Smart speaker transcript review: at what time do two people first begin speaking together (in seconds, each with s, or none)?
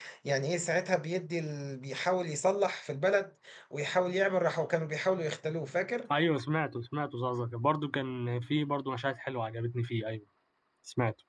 none